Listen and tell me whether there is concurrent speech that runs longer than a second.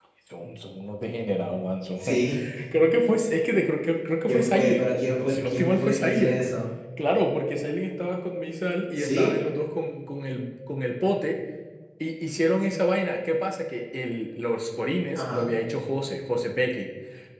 Yes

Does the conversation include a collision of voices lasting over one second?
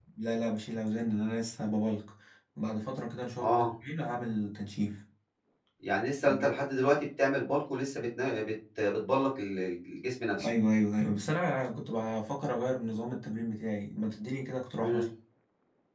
No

